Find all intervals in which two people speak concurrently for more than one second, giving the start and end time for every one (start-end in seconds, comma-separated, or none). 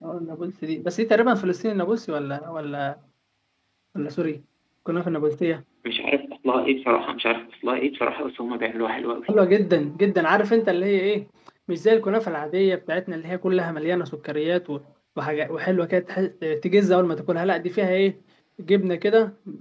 none